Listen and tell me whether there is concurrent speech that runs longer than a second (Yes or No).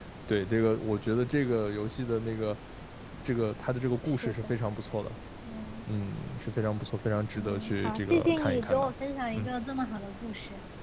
Yes